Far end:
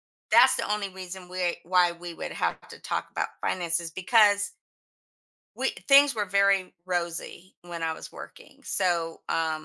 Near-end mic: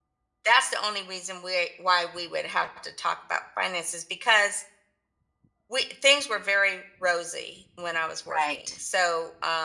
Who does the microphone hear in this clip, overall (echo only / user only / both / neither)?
both